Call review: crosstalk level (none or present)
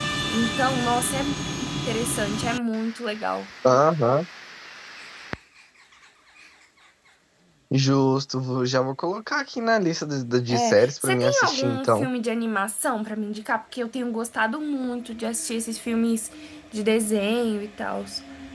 present